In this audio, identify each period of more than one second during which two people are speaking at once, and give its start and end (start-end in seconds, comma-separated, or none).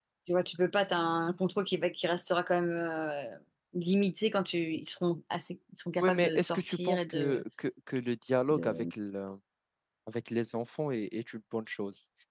6.0-7.4